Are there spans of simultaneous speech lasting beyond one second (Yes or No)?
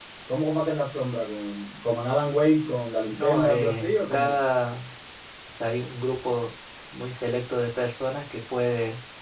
Yes